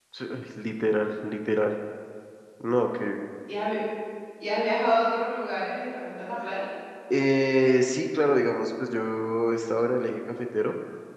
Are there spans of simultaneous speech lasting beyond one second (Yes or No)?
No